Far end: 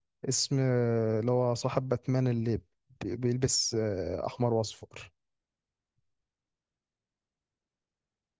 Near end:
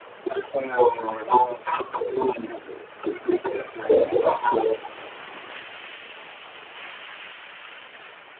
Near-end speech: none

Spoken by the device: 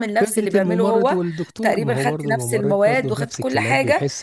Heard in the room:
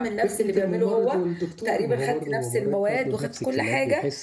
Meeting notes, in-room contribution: none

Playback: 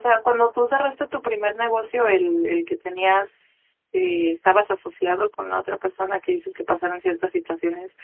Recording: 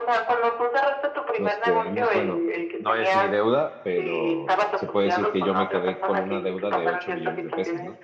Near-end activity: present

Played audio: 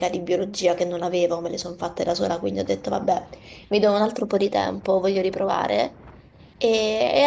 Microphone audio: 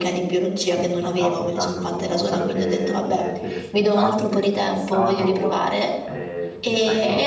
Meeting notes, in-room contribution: present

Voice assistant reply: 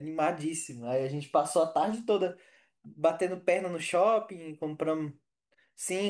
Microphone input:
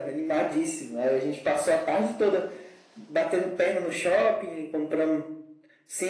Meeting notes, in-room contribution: none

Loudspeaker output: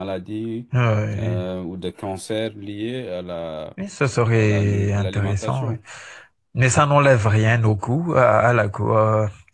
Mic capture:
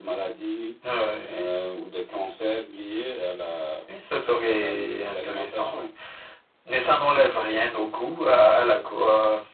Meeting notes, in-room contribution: none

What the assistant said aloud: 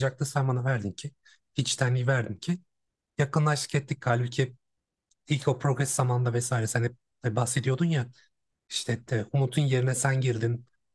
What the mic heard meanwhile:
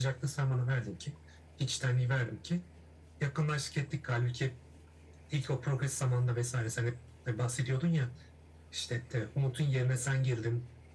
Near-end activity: none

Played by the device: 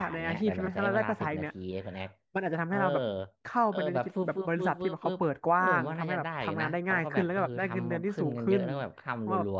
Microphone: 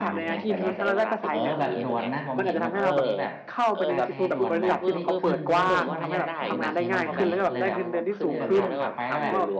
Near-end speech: present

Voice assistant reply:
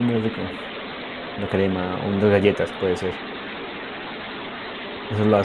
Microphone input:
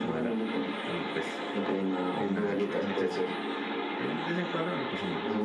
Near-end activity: present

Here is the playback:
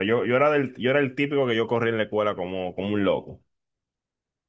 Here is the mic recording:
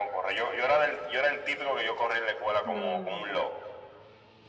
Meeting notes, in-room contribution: present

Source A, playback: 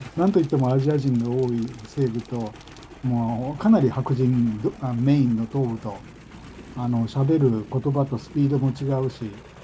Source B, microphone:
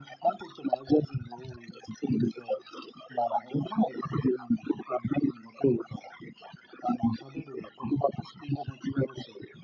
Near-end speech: none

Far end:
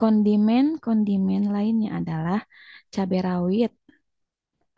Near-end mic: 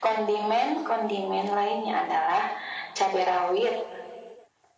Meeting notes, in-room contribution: none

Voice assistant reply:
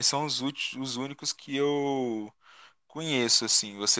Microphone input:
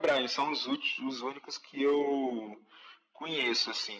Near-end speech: none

